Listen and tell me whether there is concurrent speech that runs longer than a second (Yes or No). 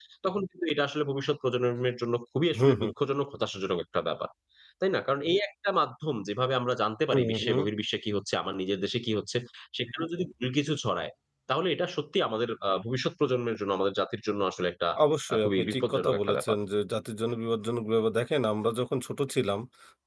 Yes